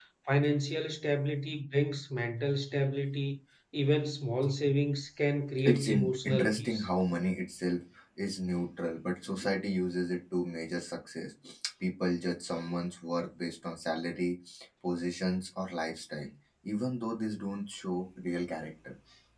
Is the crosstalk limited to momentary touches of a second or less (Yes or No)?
No